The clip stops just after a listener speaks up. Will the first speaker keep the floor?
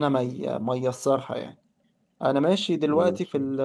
Yes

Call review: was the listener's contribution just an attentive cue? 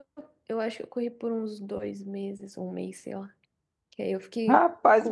No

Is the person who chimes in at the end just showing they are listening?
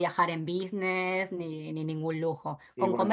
Yes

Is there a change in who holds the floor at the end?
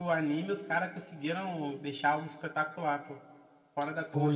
Yes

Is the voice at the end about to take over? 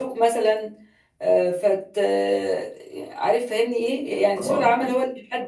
No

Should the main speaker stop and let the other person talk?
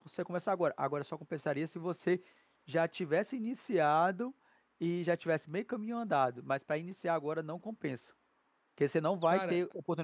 No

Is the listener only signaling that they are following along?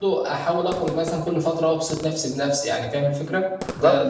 No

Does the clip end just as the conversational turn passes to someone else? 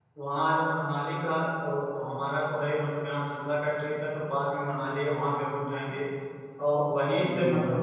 No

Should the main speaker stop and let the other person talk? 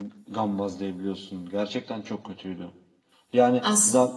No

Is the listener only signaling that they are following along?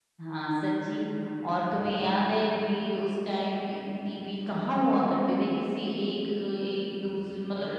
No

